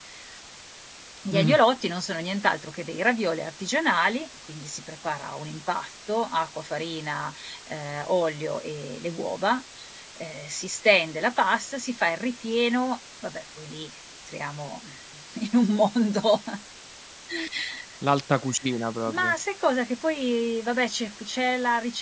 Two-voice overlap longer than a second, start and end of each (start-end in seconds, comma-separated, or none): none